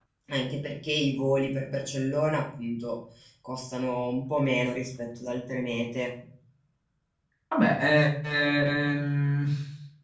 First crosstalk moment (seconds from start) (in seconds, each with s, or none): none